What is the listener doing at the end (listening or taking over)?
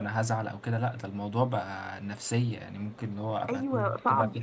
taking over